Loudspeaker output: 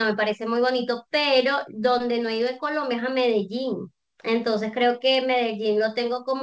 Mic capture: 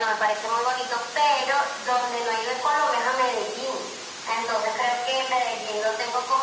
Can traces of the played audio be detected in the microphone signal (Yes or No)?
Yes